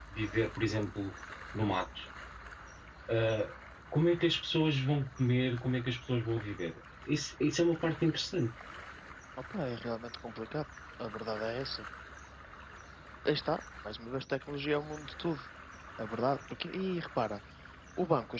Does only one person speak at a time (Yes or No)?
Yes